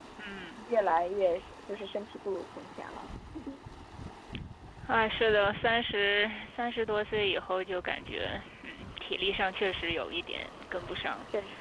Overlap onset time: none

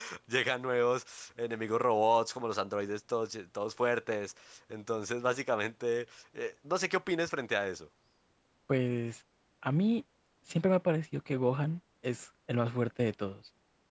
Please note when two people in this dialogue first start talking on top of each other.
none

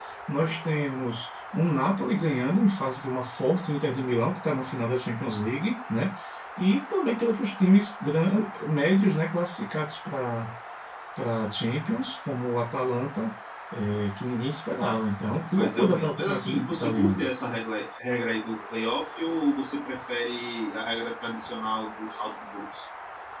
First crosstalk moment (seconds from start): 16 s

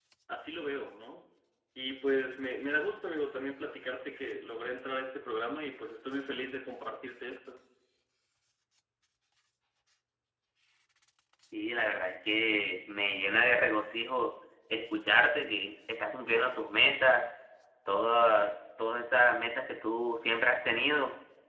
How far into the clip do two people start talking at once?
none

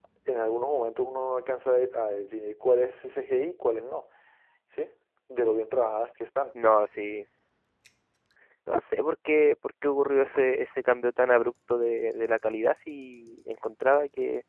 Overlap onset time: none

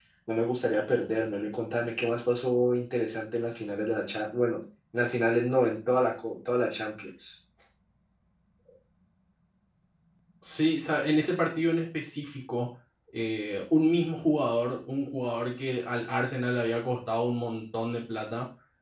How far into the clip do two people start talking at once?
none

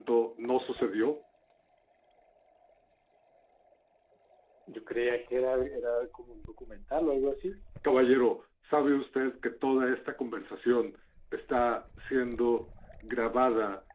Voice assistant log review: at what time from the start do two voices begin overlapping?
none

